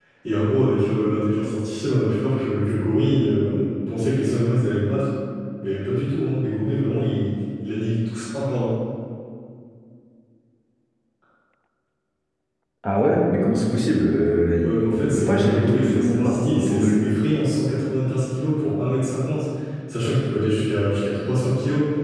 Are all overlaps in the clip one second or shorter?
No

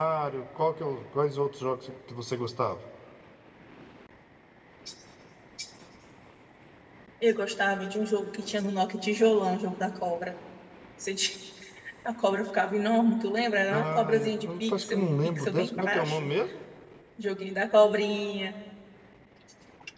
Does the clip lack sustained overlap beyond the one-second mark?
No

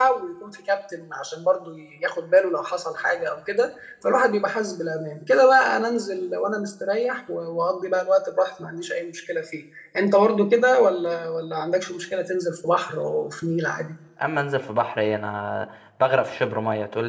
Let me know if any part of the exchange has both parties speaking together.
No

